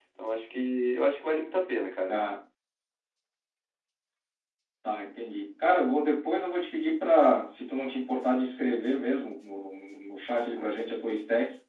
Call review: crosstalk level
none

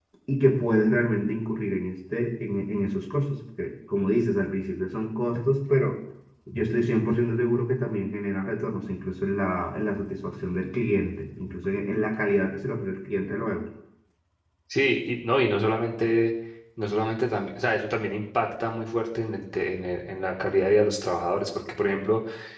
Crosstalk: none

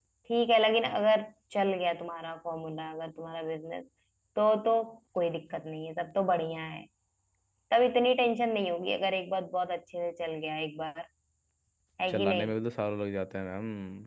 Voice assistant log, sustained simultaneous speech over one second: none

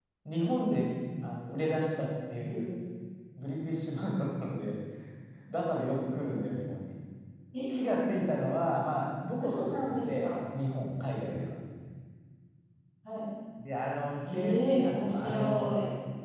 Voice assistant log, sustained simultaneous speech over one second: present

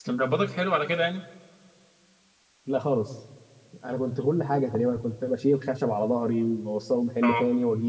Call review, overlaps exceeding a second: none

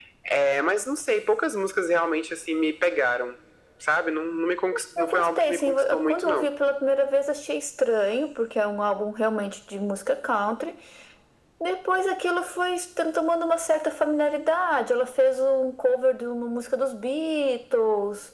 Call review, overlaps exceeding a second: present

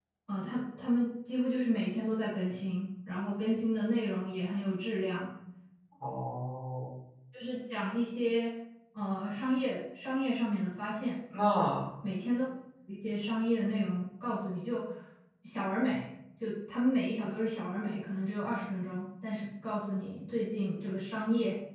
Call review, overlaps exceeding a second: none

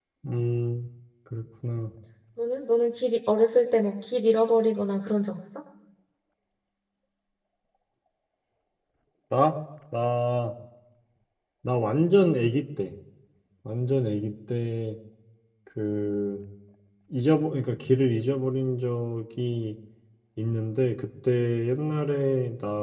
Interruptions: none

